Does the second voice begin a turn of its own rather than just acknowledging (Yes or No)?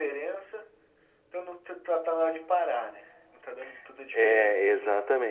Yes